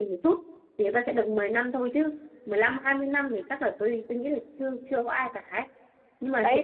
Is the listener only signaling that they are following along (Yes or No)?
No